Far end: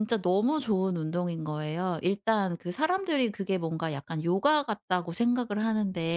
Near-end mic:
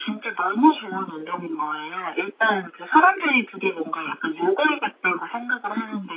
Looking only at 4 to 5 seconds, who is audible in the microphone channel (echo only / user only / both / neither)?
echo only